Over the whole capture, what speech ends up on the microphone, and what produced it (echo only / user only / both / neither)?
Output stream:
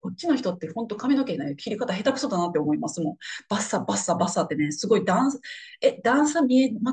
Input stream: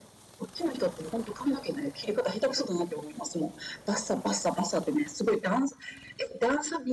echo only